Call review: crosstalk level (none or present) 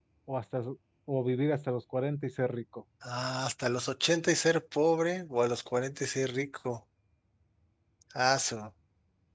none